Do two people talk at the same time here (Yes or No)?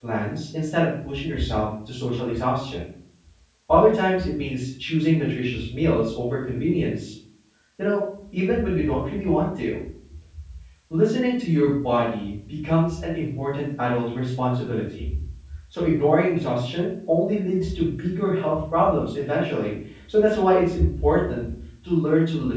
No